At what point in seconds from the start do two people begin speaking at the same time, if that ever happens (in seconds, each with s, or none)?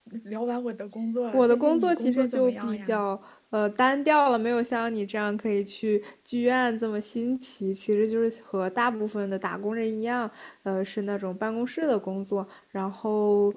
1.3 s